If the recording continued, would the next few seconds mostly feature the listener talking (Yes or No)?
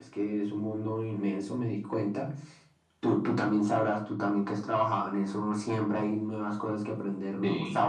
No